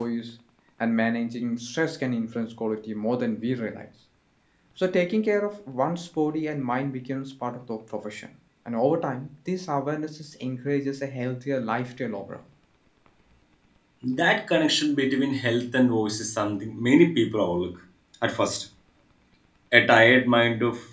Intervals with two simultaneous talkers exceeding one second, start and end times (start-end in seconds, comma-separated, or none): none